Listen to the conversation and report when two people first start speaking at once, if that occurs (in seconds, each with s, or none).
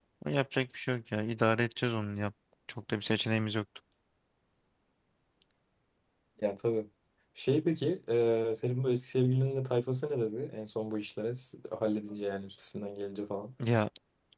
none